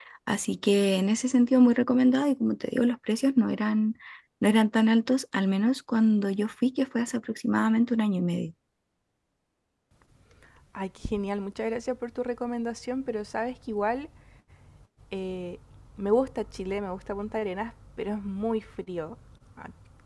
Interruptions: none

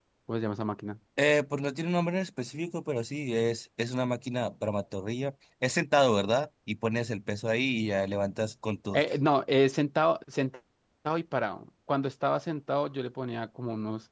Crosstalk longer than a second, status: none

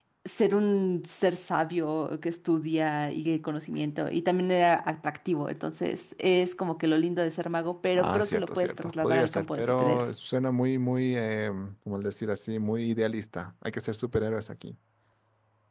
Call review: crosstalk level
present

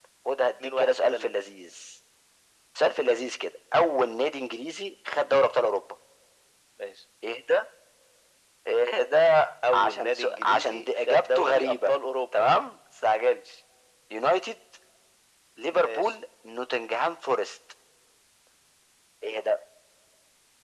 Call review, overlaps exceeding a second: present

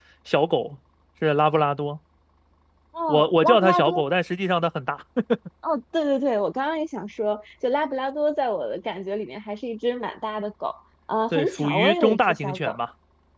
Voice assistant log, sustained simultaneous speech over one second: present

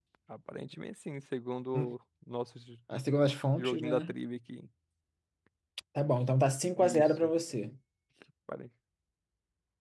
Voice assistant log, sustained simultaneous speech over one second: none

